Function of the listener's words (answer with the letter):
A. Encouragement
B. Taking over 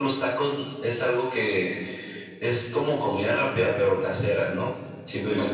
A